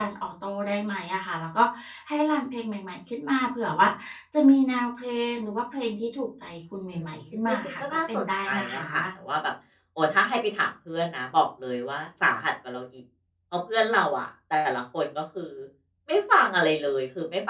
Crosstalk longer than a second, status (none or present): present